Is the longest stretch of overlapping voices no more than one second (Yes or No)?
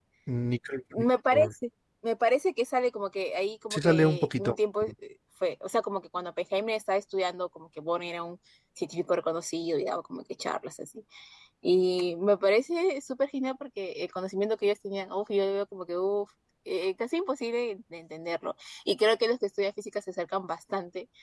No